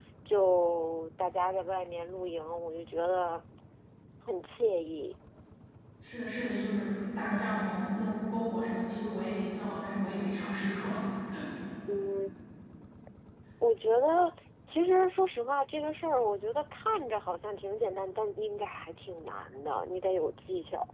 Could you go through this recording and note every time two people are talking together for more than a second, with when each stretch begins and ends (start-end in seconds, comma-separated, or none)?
none